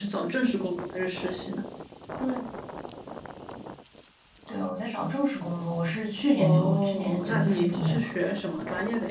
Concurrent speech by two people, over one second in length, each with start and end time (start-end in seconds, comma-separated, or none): 6.4-8.1